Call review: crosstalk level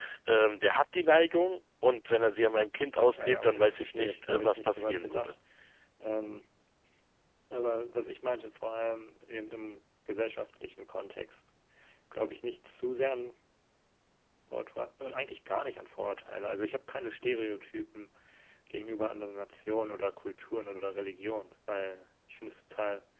present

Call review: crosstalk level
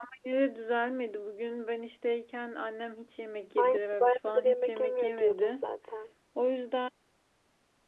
present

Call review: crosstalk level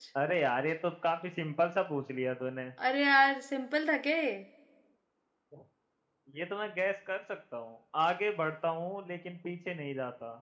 none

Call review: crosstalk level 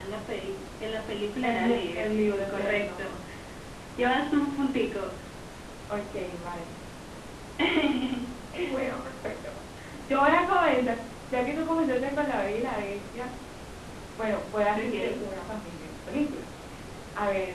present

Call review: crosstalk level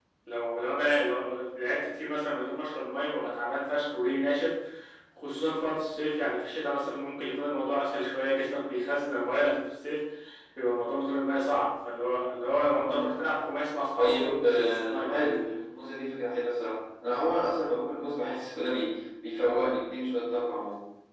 present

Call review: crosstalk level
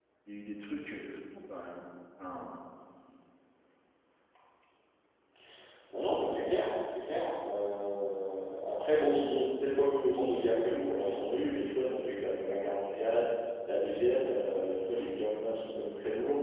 none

